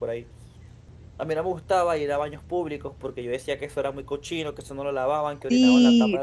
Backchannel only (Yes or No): No